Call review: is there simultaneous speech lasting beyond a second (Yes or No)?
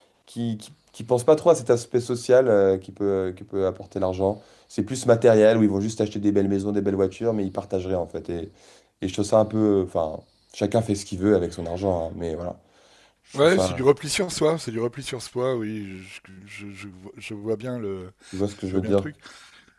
No